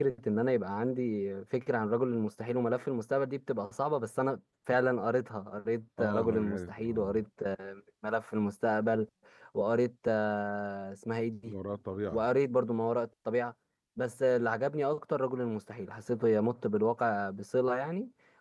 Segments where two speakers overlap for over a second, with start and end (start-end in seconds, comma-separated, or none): 6.0-7.2